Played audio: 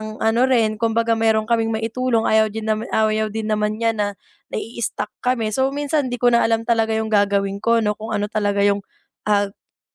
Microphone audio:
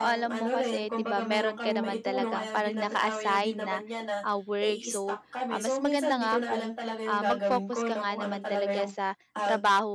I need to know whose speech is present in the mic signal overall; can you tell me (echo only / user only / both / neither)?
both